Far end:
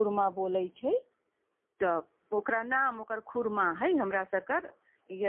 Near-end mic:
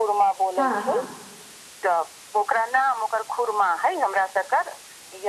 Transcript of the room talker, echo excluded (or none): हँ हँ